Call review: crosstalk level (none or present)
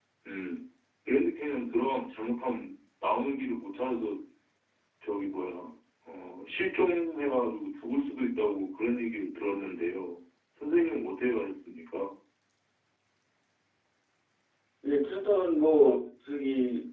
none